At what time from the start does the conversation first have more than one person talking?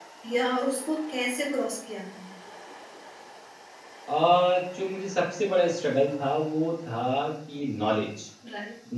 none

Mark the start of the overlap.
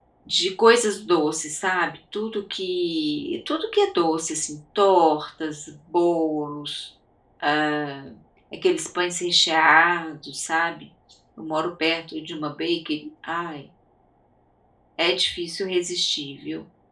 none

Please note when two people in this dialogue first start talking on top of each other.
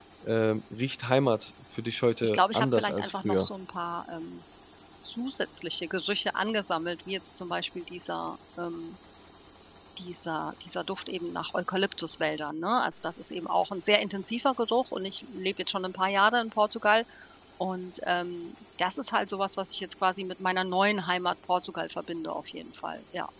2.2 s

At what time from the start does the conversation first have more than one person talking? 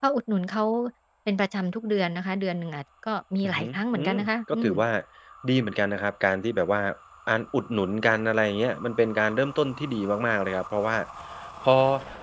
3.4 s

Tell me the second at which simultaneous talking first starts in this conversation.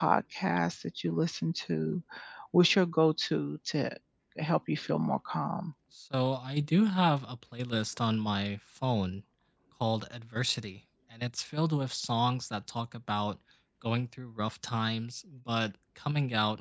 none

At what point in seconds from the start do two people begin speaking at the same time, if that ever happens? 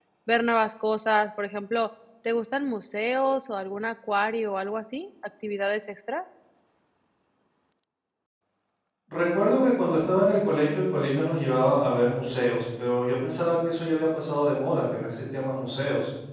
none

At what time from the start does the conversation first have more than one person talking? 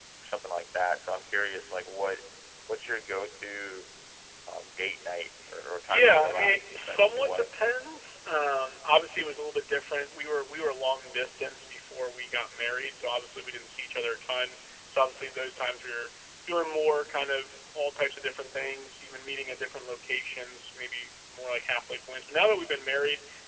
5.9 s

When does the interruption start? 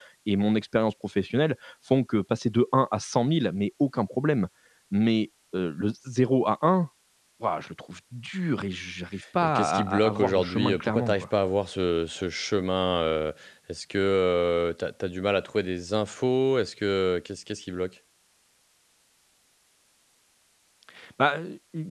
9.4 s

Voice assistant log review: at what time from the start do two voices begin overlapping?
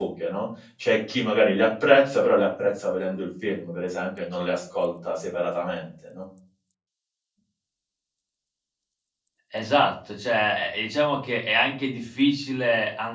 none

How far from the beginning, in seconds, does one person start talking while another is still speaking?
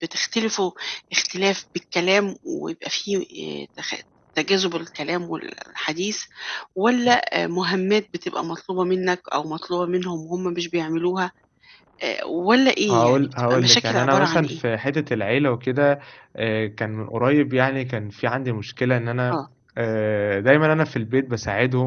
12.9 s

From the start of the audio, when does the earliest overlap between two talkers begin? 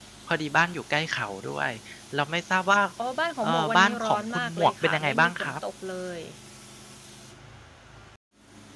3.4 s

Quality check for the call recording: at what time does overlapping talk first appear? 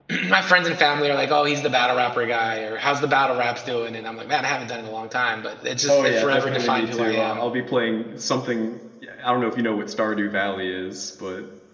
5.9 s

